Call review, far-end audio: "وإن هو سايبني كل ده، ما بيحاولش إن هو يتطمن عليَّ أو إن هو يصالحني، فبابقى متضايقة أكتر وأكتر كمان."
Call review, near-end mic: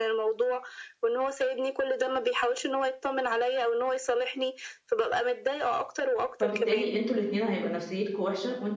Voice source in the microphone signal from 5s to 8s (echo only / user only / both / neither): both